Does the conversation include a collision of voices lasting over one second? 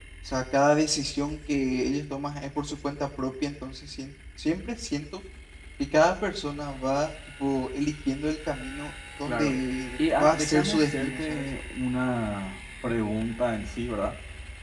Yes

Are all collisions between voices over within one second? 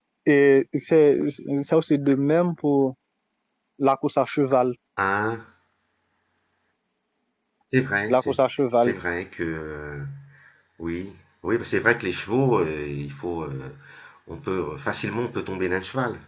Yes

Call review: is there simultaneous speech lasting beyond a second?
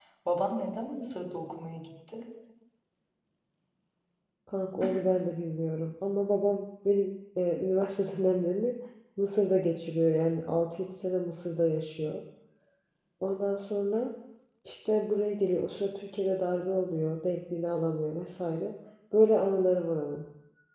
No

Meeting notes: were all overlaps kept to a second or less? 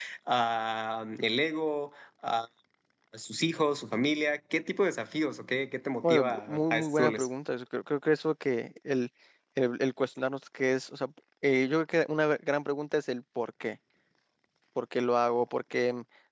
No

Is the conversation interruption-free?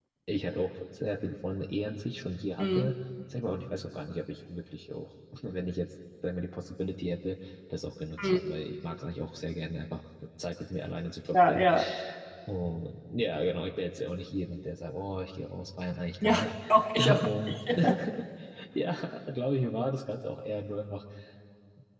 No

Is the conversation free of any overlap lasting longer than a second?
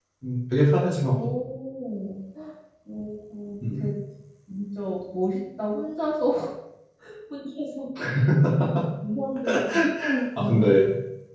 Yes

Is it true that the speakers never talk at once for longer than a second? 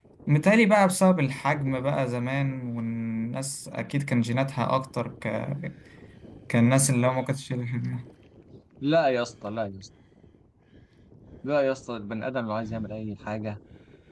Yes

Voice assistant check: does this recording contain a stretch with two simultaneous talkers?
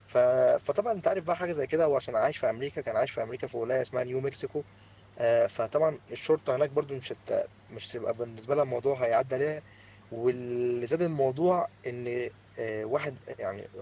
No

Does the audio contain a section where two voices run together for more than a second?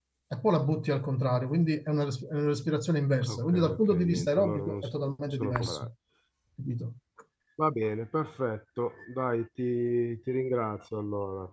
Yes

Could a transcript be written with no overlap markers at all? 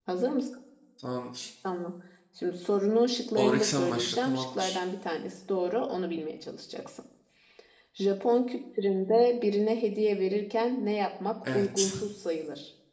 No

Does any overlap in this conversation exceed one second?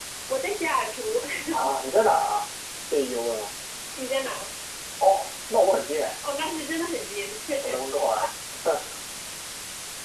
No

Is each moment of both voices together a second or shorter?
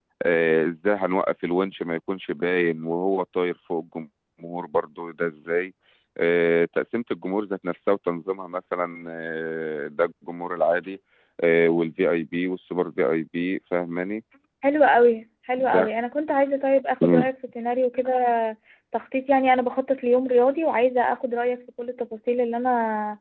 Yes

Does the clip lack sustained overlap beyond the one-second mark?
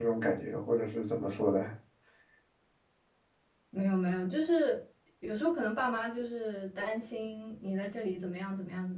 Yes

